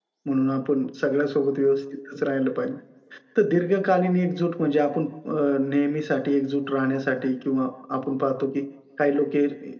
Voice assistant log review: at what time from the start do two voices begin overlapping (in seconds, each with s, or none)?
none